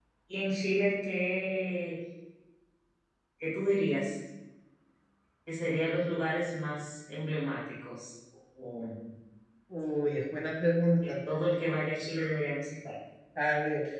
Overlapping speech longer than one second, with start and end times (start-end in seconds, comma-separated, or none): none